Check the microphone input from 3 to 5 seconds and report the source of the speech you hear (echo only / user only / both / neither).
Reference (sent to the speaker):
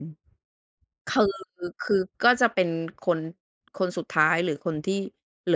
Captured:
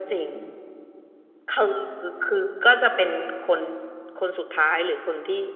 echo only